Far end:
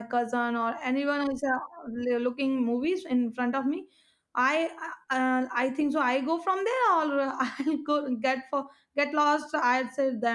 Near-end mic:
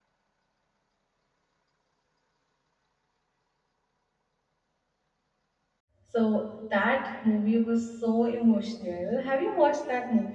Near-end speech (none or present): present